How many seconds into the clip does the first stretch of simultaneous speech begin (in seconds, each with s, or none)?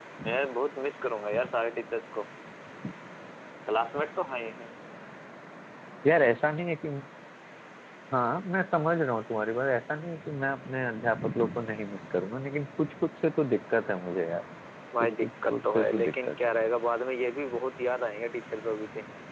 15.0 s